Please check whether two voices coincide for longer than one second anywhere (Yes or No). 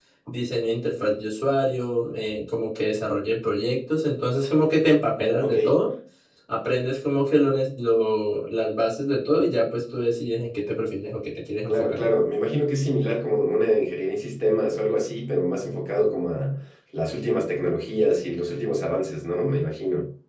No